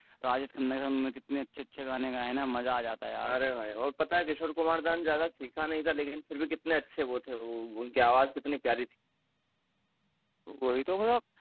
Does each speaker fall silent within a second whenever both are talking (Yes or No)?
Yes